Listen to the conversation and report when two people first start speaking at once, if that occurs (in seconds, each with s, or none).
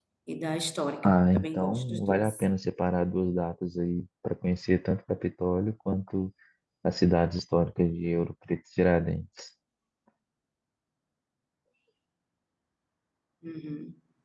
1.0 s